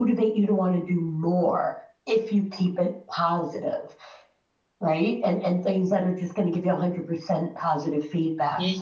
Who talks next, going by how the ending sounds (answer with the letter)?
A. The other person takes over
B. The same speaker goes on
A